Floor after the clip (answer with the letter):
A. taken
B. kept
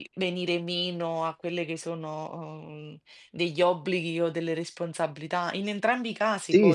A